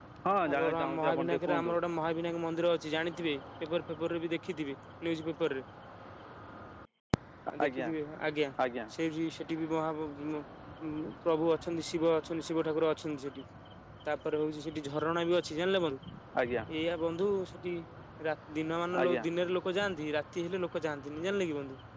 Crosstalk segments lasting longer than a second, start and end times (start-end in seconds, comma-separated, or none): 0.5-1.7